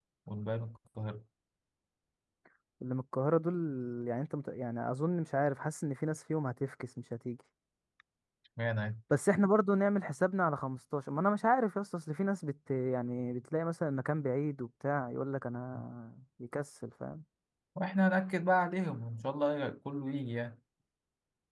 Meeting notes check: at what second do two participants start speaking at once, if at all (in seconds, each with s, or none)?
none